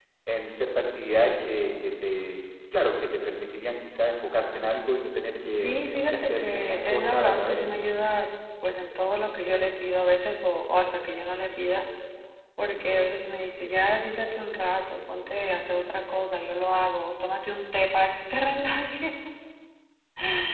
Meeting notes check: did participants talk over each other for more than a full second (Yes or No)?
Yes